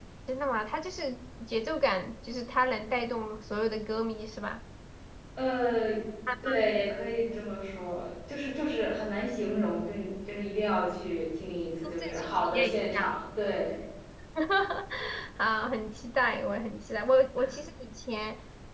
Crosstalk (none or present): present